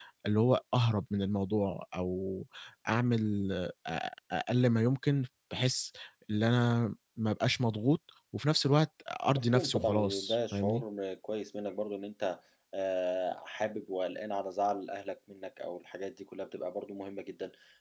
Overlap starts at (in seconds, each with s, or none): 9.3 s